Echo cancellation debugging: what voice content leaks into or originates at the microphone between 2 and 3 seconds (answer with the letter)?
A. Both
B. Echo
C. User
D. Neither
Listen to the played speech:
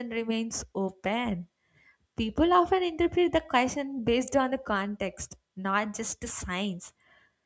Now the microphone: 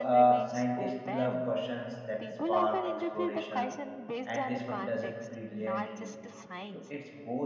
A